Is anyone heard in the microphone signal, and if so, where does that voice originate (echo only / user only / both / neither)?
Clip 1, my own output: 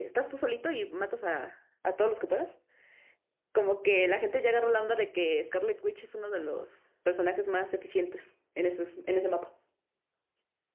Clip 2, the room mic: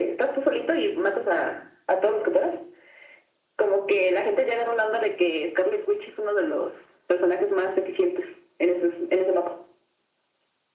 echo only